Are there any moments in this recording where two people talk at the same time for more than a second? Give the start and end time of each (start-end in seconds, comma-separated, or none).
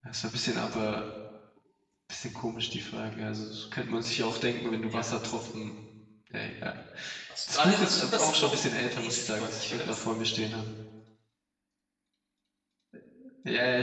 7.5-10.0